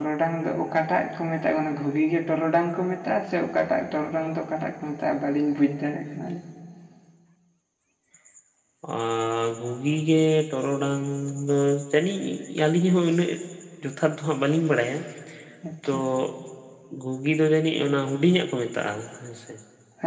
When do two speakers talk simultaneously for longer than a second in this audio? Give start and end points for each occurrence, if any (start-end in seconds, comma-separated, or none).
none